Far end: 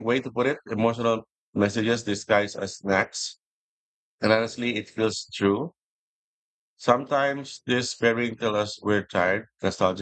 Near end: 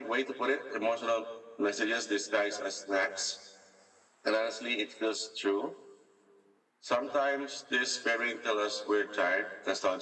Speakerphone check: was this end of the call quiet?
Yes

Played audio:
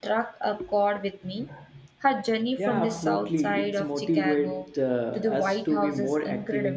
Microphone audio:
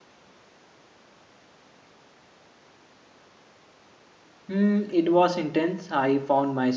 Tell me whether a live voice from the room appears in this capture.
Yes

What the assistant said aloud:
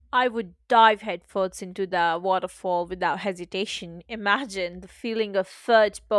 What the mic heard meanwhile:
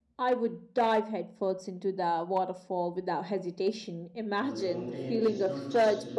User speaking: Yes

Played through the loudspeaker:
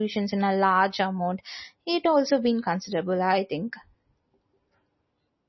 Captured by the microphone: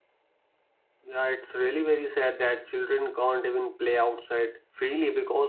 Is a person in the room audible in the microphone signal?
Yes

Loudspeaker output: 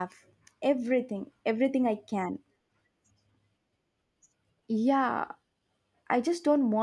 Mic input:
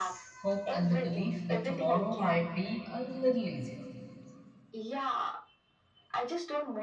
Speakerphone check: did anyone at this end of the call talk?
Yes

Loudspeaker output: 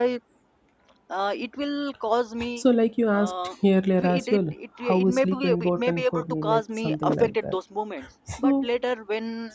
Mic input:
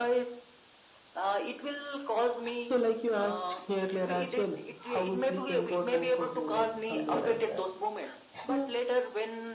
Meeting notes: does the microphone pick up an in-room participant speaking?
No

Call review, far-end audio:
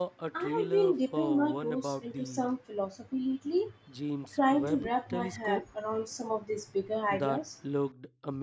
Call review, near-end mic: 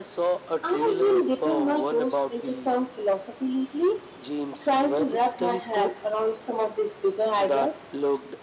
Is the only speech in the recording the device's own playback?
Yes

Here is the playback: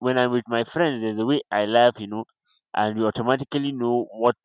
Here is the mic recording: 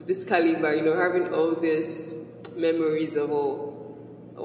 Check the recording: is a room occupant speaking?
Yes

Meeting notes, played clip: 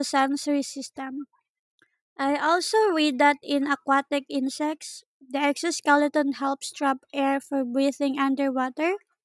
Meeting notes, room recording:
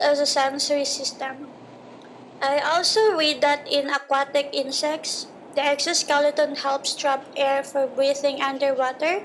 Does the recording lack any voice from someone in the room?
Yes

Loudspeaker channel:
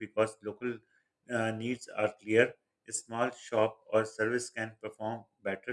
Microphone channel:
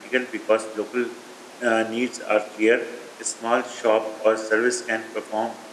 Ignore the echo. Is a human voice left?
No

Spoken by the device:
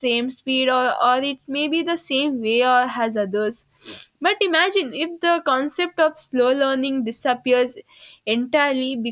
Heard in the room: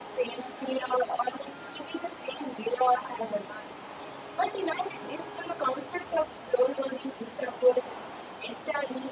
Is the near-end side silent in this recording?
Yes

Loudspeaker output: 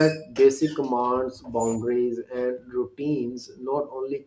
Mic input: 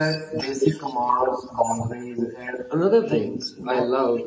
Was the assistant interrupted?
Yes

